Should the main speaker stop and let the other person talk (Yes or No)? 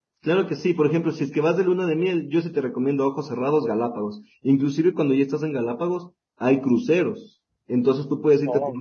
No